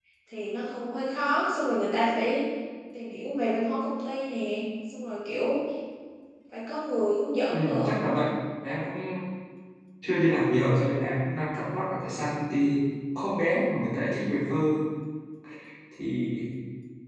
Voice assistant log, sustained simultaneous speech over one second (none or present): none